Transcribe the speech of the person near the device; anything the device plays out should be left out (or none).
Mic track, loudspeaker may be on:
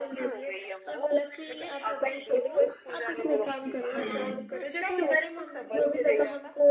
हम्म